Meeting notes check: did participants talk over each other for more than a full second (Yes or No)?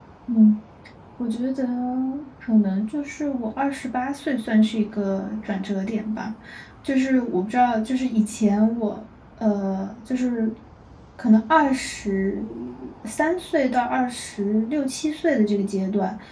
No